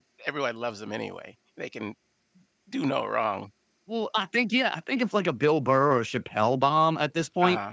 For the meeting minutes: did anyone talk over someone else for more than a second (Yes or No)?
No